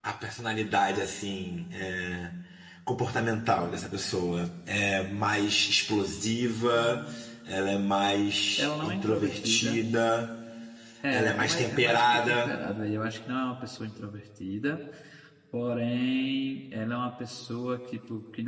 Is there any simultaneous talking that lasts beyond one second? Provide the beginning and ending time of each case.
8.6-9.8, 11.1-12.5

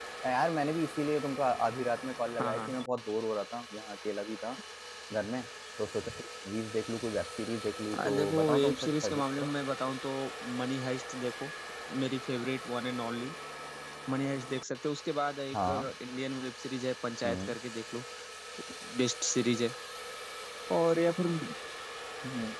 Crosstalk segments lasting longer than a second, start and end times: 8.1-9.5

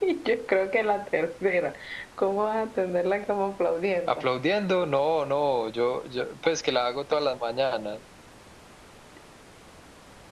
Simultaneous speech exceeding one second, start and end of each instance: none

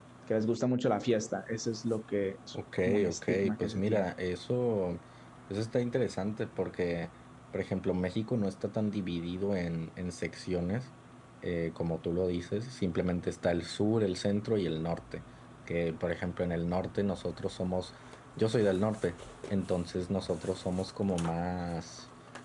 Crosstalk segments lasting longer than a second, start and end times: 2.8-4.1

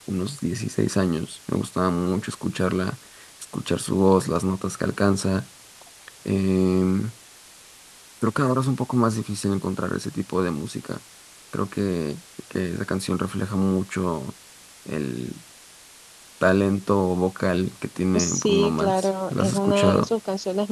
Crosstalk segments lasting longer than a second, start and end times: 18.1-20.1

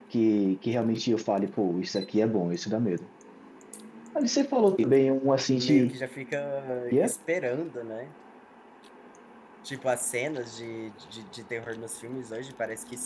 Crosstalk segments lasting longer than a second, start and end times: none

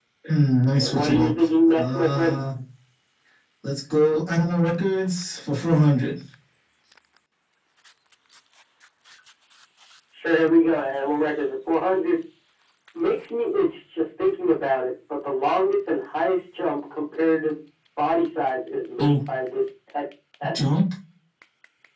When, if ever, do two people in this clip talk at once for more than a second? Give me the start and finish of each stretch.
0.8-2.3

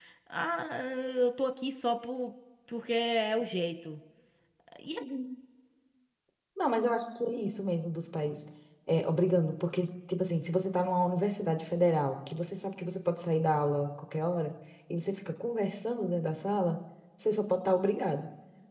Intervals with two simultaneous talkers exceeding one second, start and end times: none

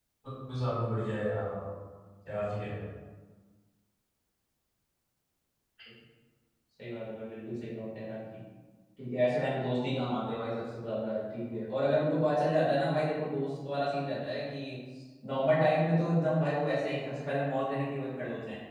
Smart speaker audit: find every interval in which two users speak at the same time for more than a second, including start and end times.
none

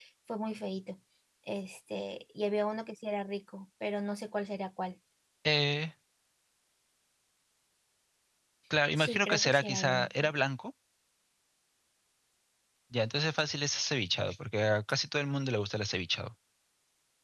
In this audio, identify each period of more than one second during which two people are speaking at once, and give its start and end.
9.0-10.3

